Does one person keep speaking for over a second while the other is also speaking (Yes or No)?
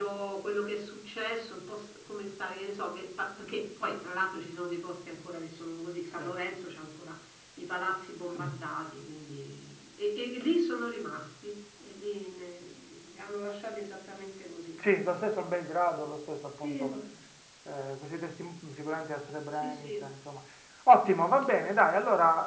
No